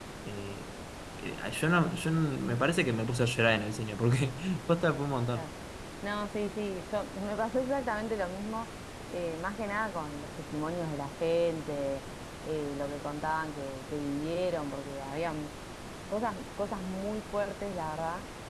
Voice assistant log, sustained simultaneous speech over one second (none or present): none